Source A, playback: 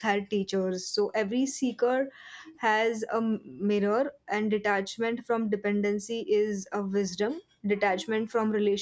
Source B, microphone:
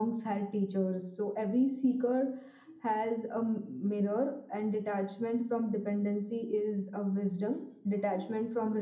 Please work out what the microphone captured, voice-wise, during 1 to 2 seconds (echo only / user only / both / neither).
echo only